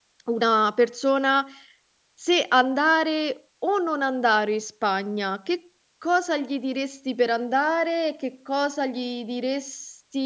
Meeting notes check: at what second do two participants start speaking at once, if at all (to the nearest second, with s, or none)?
none